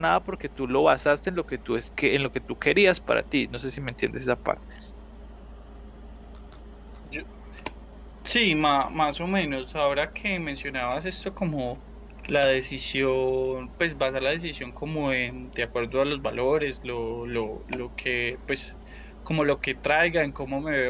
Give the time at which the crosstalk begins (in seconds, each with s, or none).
none